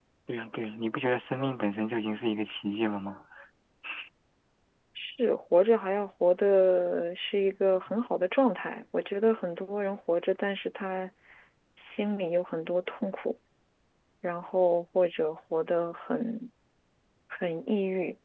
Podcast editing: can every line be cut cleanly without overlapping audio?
Yes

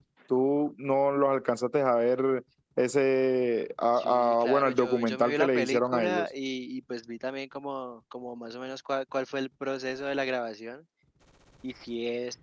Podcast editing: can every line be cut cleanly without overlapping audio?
No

